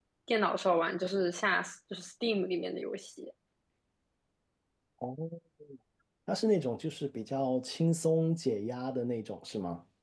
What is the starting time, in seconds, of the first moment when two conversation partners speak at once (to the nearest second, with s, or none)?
none